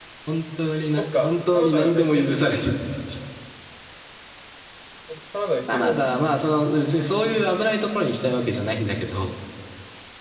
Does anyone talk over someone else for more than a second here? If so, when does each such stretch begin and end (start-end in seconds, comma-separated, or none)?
1.0-2.2